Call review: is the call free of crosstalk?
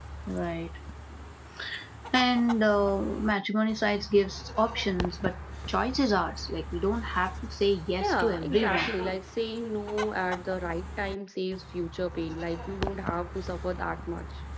No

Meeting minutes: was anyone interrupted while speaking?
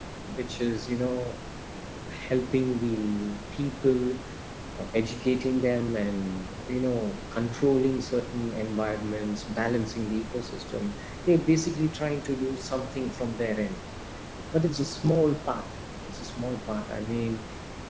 No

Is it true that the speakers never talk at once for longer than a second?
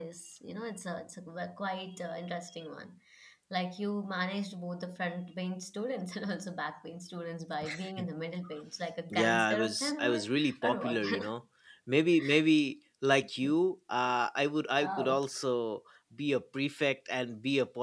No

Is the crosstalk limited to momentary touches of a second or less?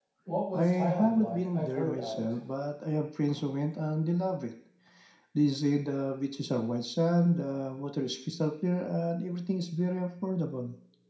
No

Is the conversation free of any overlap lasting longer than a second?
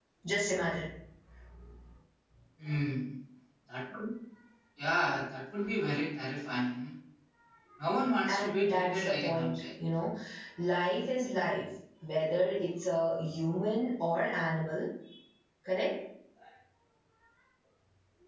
No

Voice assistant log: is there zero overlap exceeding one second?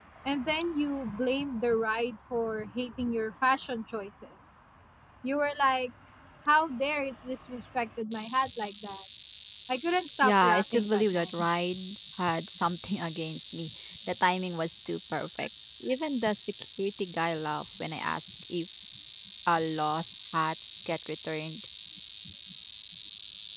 No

